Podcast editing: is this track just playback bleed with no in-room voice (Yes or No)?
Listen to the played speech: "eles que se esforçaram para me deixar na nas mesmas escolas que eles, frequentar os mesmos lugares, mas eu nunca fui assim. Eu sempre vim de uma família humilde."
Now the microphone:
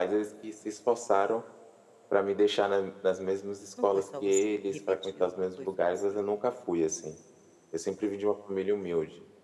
No